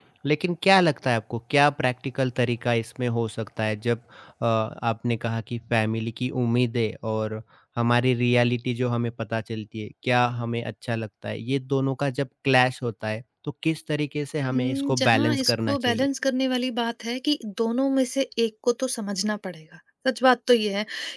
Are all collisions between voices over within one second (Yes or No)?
No